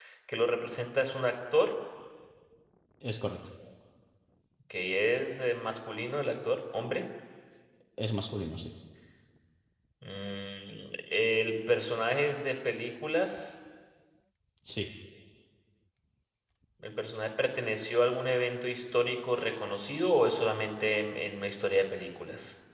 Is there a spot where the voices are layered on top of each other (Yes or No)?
No